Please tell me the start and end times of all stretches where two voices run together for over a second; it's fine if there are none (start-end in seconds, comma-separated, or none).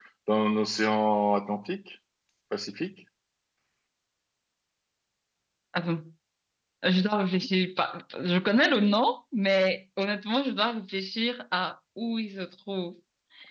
none